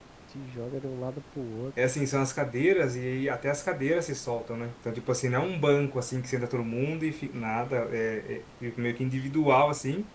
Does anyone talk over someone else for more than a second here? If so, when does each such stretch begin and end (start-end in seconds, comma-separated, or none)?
none